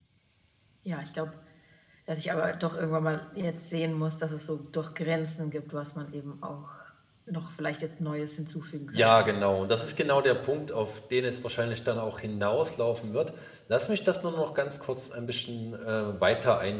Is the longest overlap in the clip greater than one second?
No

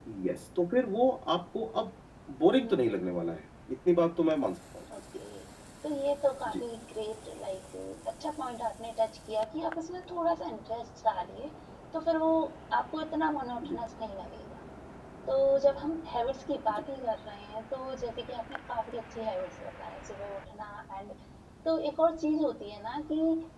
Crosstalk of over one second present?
No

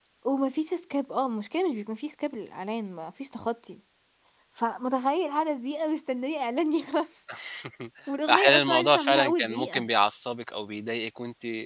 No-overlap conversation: No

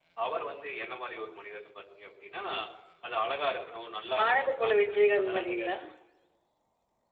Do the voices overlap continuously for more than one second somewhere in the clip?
Yes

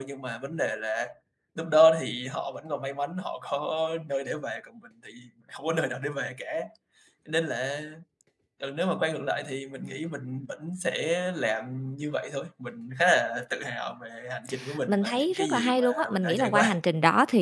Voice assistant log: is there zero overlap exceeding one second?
No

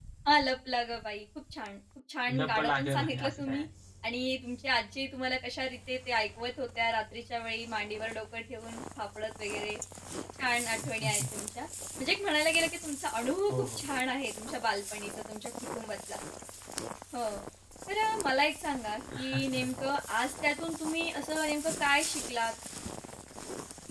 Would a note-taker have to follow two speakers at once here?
Yes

